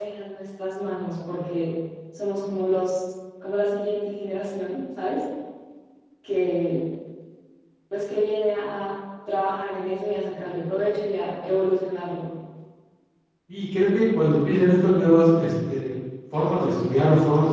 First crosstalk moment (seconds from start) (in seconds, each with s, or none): none